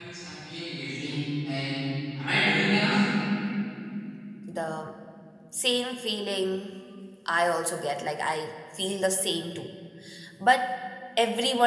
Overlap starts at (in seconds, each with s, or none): none